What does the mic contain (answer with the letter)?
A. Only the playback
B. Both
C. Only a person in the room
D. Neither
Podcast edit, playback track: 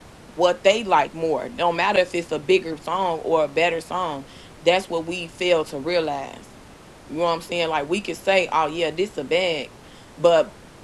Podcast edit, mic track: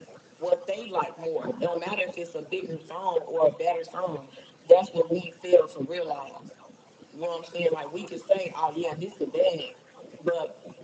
A